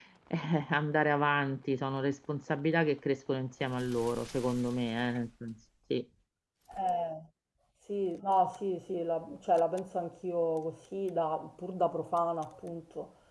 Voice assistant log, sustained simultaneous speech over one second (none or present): none